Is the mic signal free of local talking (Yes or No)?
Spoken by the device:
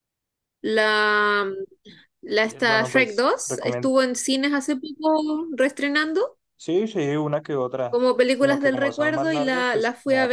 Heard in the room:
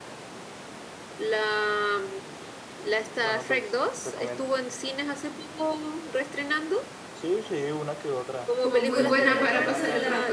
No